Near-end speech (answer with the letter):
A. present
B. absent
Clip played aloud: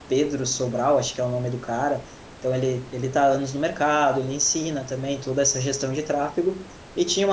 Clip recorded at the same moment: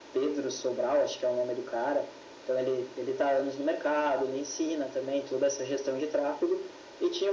B